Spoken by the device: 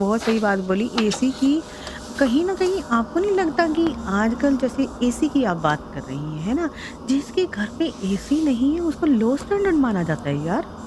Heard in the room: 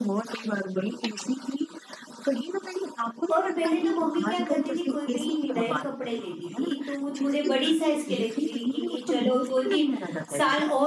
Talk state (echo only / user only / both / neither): both